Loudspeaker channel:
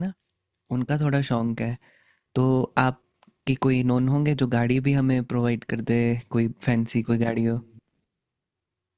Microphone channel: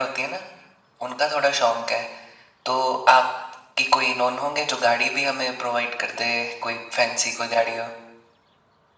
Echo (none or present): present